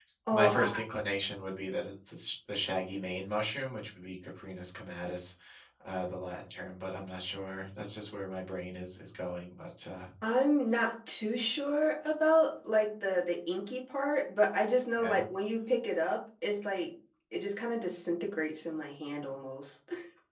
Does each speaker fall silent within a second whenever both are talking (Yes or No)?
Yes